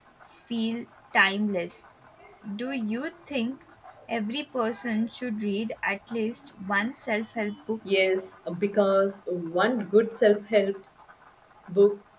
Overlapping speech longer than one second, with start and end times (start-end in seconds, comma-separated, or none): none